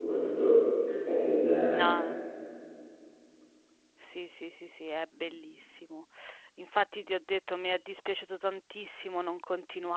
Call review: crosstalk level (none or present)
none